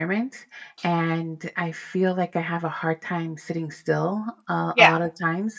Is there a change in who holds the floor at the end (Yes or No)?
No